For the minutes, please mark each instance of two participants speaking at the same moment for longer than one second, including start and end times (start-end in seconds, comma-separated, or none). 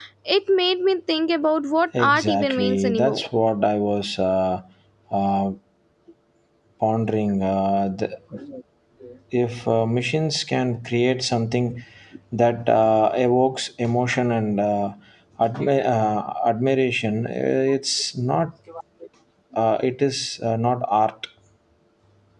2.0-3.3